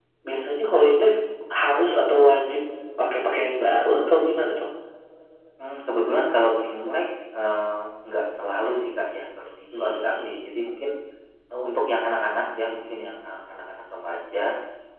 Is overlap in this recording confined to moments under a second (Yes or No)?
Yes